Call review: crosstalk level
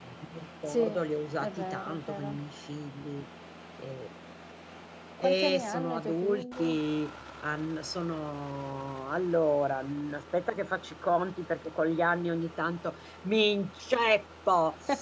present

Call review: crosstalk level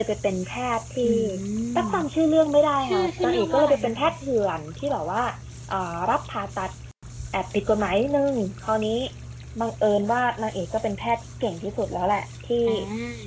present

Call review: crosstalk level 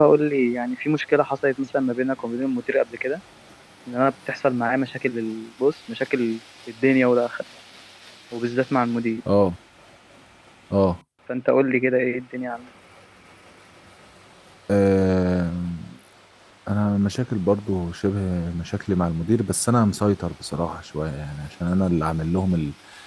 none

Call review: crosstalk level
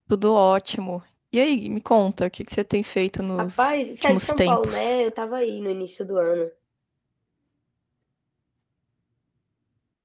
present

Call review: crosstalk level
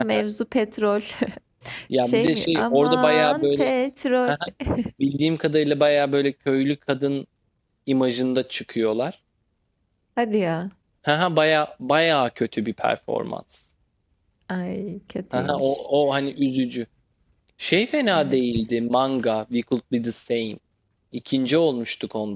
present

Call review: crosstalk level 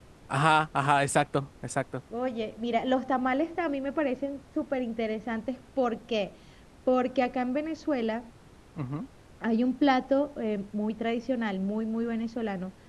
none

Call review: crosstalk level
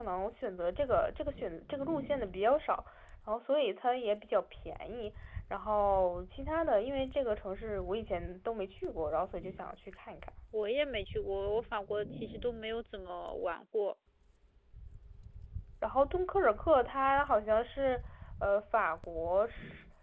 none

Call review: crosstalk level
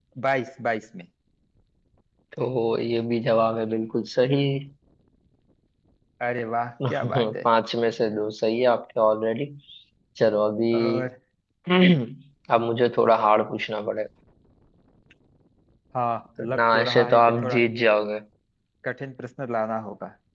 present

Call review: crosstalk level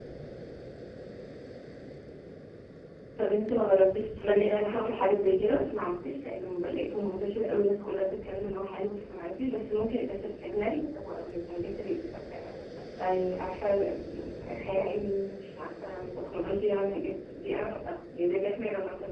present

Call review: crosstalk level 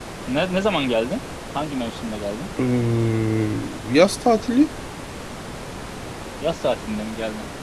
none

